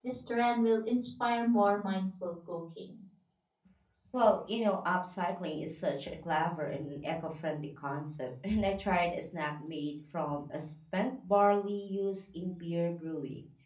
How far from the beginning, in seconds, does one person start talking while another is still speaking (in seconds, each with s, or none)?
none